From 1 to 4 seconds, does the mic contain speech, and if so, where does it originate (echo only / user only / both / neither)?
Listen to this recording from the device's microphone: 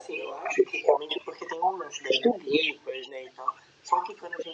echo only